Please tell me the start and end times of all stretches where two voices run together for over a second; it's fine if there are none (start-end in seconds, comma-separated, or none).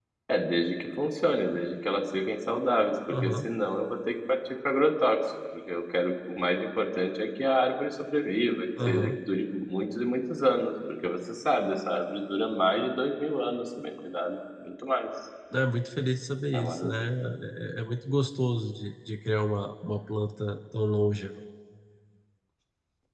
none